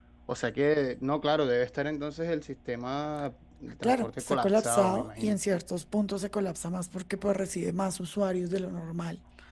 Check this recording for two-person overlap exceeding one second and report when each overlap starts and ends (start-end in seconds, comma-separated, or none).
3.8-5.4